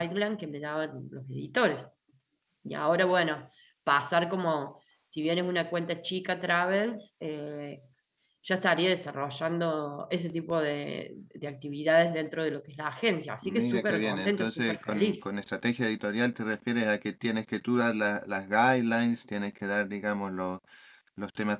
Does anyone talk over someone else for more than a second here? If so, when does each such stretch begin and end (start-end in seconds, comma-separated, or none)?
13.4-15.2